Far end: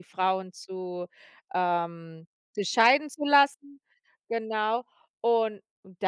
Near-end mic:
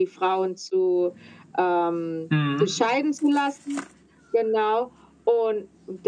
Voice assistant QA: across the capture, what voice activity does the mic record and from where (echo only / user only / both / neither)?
both